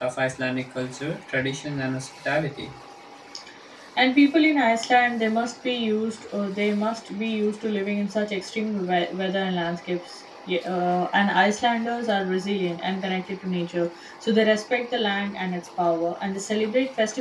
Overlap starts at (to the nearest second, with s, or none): none